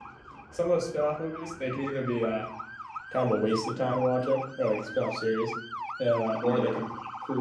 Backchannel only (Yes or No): Yes